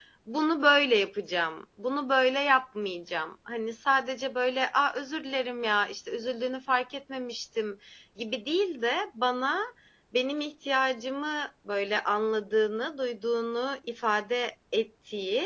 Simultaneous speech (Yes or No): No